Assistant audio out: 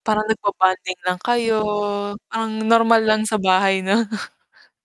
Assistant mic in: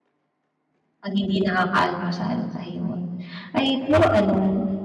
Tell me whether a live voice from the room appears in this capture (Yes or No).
Yes